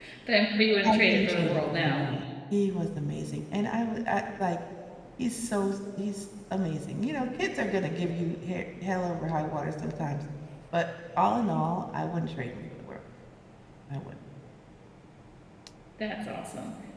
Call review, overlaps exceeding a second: present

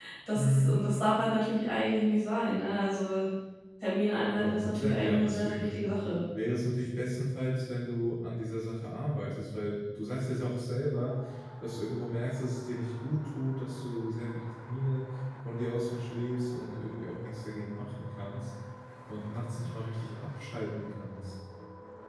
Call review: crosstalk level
present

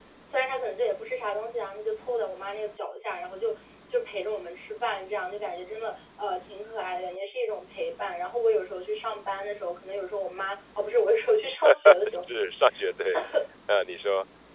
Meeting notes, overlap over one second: none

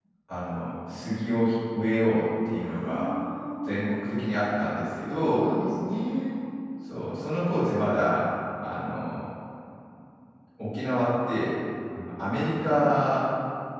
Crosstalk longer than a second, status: none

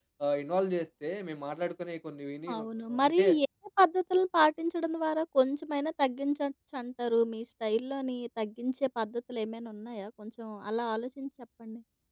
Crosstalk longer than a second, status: none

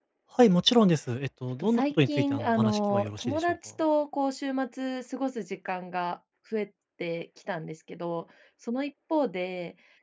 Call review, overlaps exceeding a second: present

